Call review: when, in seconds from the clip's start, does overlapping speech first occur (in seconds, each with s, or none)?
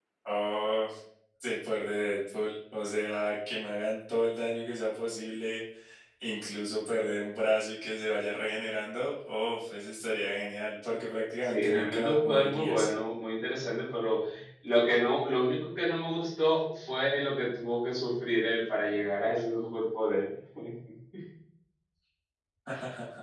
11.4 s